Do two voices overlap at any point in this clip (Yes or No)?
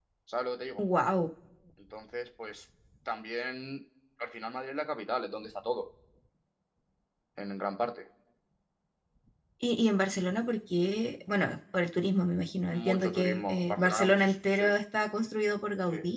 Yes